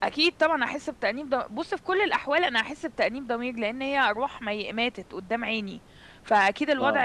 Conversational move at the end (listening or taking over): listening